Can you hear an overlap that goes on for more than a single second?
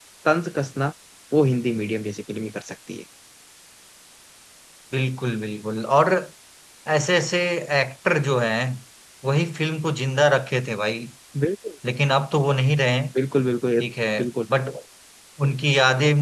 No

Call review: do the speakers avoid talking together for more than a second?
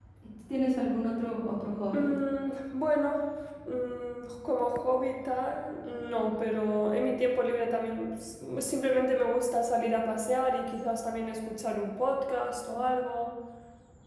Yes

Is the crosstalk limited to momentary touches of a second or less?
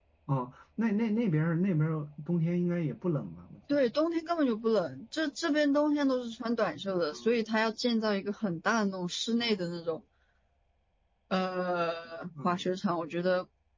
Yes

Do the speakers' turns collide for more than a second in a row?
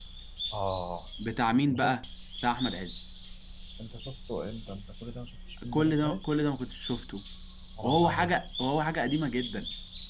No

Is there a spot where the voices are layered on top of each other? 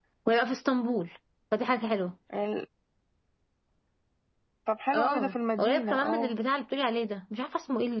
Yes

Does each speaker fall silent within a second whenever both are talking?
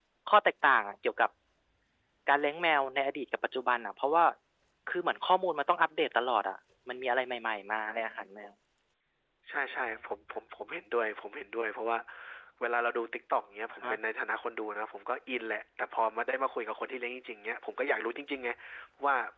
Yes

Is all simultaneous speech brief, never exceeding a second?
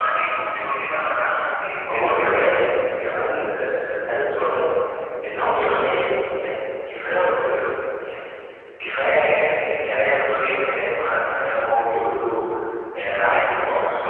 Yes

